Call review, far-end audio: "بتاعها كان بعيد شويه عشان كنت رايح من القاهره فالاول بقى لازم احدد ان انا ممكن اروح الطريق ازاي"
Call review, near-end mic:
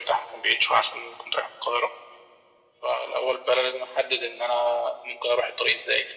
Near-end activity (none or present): none